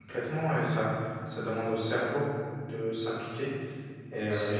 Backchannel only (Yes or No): Yes